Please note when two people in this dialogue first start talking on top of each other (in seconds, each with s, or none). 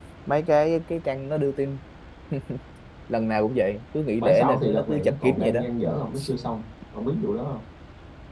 4.2 s